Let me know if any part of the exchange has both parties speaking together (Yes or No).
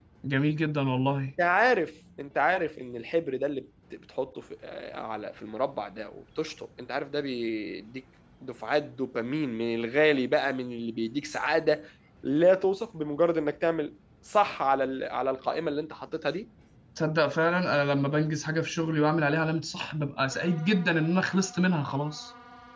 No